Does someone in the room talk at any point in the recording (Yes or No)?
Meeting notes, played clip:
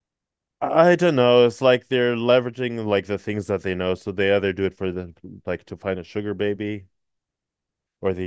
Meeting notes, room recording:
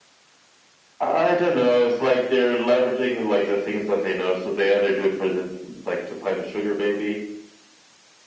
No